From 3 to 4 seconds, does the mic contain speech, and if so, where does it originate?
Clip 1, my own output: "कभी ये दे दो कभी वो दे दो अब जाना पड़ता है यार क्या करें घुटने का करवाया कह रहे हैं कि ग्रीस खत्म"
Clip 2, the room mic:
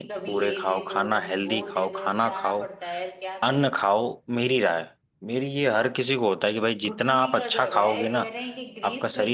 both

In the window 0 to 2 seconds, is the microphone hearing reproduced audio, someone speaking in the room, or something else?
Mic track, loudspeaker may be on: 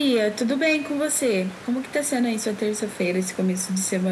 echo only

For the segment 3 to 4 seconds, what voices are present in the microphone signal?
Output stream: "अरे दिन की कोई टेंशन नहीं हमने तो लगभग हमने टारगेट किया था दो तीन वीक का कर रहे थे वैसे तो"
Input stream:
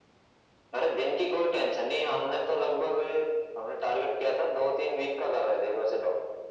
echo only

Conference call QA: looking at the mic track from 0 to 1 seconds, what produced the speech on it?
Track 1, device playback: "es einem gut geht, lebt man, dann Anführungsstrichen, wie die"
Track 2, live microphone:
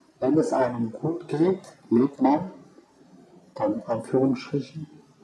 echo only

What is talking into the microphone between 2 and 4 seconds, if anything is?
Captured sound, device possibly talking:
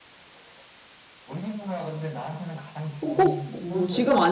both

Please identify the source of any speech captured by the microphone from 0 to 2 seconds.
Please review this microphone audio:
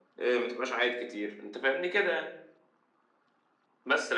echo only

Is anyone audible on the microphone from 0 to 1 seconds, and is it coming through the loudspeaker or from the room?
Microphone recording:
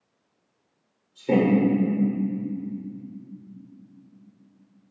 neither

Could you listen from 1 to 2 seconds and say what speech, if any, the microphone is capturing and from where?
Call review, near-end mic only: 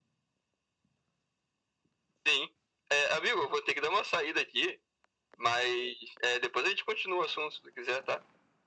neither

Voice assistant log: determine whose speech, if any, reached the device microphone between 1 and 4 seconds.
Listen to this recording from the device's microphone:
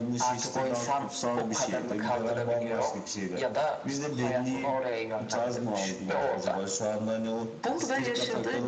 echo only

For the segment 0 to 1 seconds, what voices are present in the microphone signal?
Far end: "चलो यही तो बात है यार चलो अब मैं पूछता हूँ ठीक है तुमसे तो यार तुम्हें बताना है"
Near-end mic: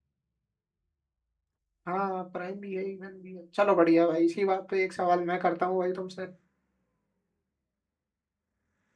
neither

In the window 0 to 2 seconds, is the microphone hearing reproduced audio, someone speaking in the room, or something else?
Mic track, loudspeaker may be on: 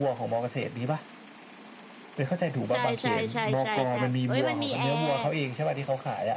echo only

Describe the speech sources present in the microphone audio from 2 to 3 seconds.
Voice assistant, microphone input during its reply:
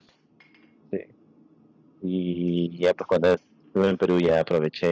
user only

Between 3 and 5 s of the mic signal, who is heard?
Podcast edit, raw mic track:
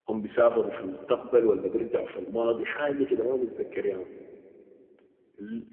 user only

